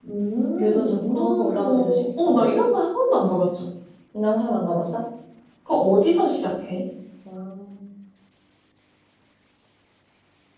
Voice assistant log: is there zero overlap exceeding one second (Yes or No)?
No